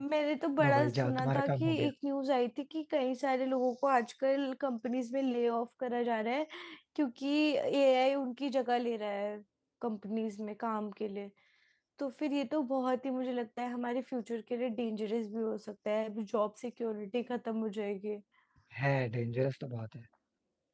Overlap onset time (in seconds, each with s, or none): 0.6 s